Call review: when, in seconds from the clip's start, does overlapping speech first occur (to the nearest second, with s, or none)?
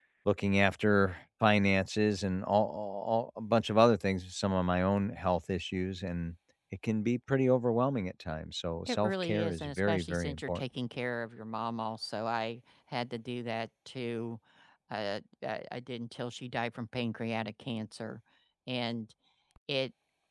9 s